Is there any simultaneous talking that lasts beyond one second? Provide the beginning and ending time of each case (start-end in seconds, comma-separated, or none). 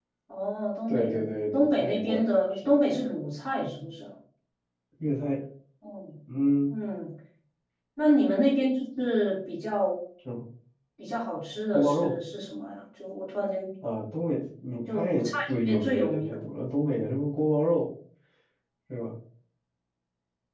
0.9-2.8, 14.9-16.5